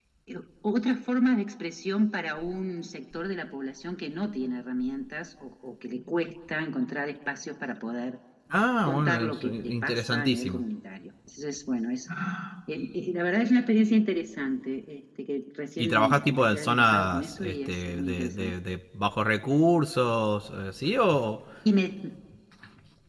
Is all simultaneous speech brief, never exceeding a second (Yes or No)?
No